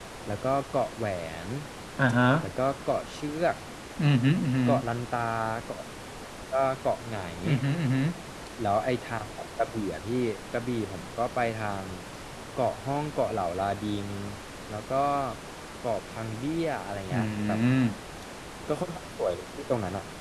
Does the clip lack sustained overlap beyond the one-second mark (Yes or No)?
Yes